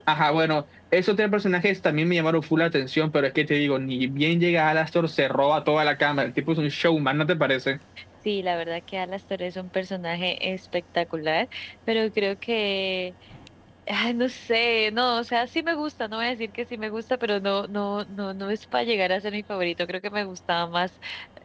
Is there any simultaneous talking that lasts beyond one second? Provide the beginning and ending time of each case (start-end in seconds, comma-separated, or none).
none